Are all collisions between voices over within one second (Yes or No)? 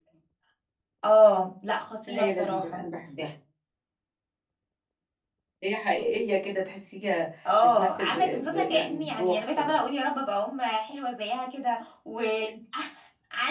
No